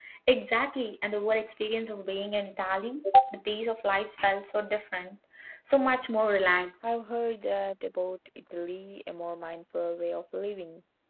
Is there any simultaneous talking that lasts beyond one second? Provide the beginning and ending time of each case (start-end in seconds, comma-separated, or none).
none